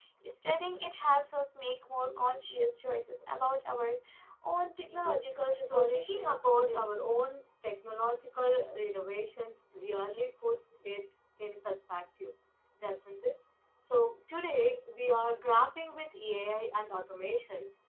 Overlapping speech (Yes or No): Yes